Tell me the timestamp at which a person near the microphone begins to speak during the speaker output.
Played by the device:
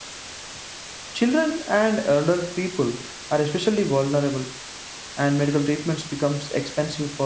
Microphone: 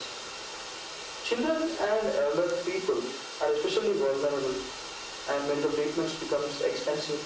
none

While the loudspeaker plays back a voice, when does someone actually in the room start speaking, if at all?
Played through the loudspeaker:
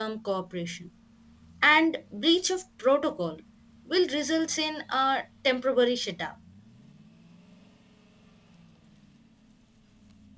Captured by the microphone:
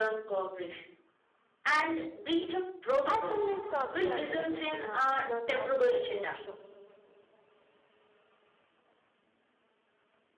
3.1 s

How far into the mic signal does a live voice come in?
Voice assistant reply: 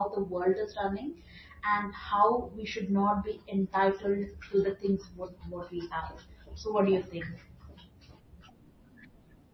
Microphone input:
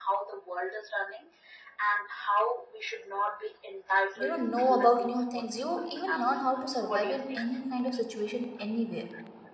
4.1 s

